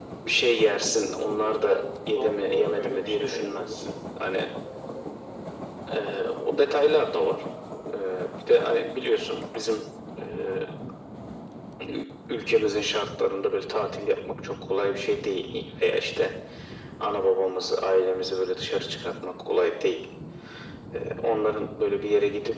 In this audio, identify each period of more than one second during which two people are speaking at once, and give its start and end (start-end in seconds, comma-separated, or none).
2.1-3.9